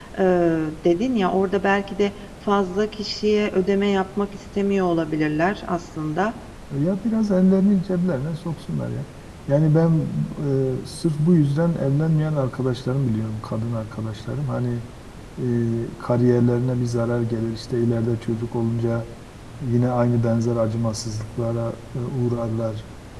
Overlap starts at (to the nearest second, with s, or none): none